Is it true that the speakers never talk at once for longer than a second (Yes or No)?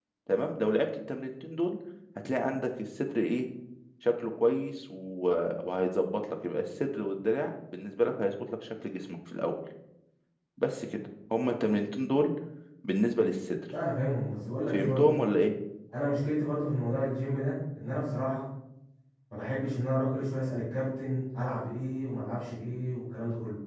Yes